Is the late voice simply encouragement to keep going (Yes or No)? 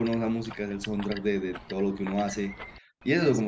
Yes